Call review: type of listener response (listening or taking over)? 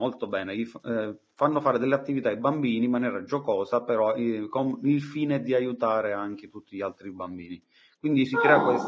listening